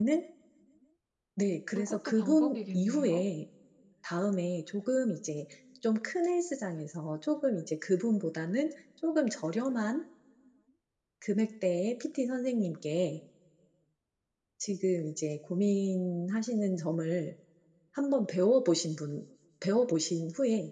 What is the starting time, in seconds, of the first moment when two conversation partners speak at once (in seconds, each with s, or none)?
1.8 s